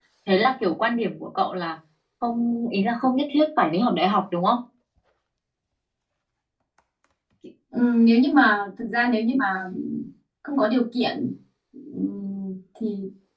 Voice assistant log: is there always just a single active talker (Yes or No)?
Yes